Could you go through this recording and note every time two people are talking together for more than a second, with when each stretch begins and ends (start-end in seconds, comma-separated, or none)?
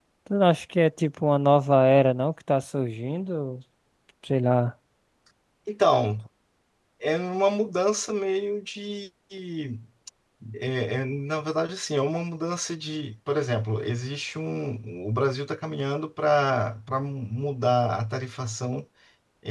none